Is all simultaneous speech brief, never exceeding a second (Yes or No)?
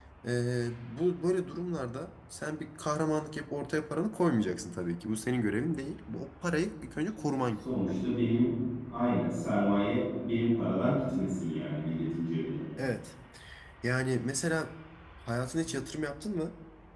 Yes